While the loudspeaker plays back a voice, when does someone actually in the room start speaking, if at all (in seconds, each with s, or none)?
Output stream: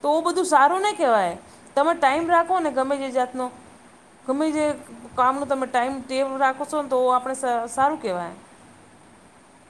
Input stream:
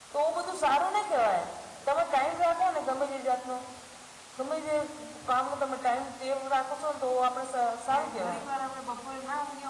7.9 s